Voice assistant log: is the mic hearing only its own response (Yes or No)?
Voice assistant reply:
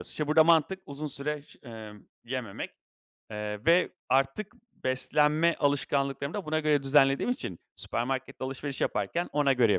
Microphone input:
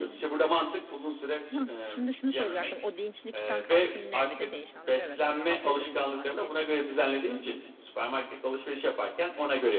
No